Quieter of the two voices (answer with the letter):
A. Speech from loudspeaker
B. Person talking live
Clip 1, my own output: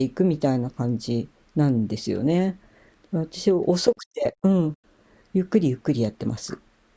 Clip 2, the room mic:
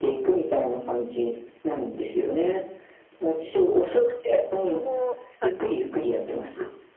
B